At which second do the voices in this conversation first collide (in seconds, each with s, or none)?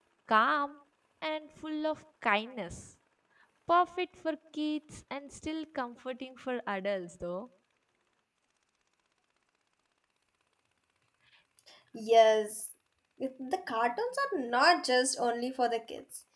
none